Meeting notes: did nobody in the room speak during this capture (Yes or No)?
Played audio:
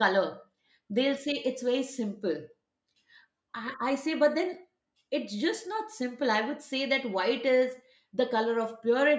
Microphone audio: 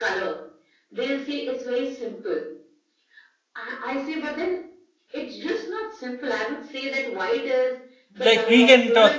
No